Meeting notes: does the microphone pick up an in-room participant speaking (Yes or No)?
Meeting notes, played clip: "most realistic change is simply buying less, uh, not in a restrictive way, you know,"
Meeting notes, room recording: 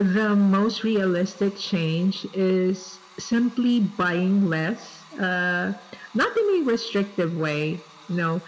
No